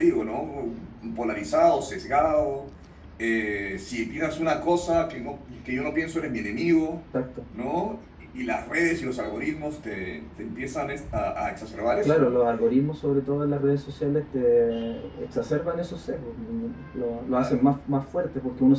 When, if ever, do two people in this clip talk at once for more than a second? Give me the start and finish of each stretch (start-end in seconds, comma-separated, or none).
none